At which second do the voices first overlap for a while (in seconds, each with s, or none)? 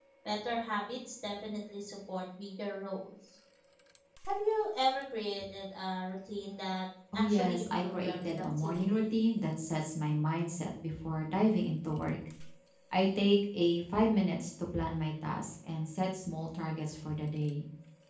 7.1 s